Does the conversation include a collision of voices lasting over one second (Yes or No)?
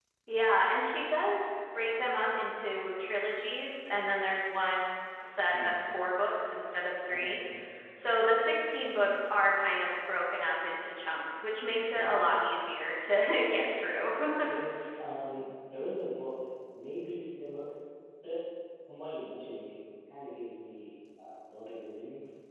No